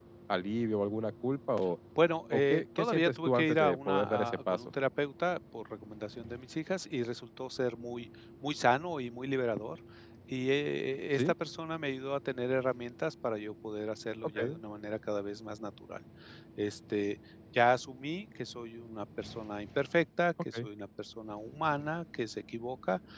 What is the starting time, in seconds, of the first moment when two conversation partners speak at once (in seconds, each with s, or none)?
2.3 s